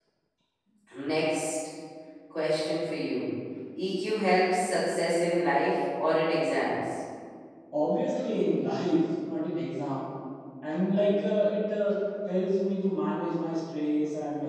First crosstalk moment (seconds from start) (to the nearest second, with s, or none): none